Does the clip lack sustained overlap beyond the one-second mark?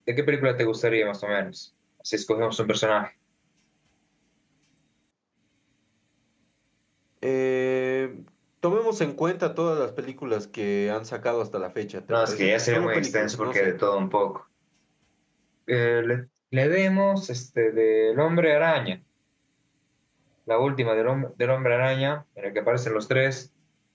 No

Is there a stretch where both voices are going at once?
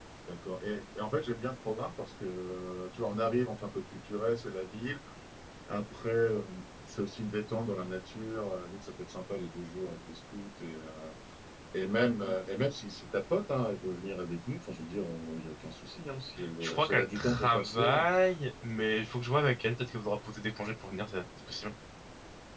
Yes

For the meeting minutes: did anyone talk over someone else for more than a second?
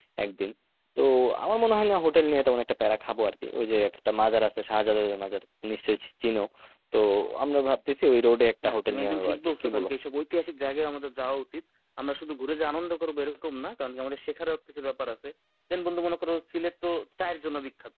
Yes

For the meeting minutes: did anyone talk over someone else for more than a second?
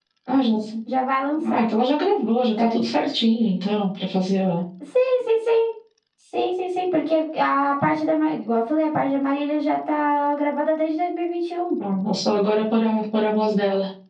No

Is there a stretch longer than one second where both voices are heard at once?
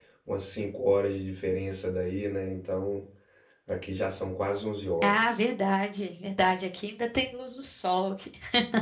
No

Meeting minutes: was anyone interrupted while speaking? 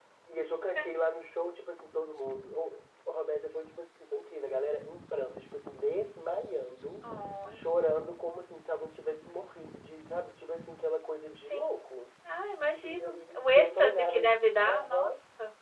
Yes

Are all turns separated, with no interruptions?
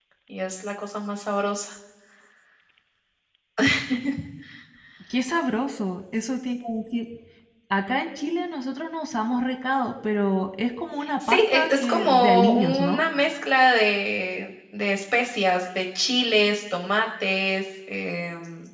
No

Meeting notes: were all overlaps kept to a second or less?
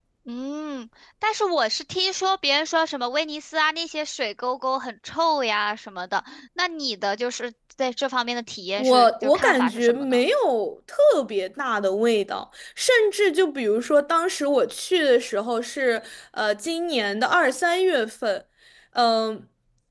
No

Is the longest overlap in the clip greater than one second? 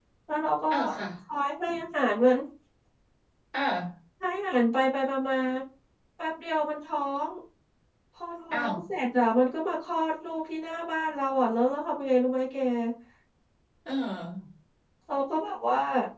No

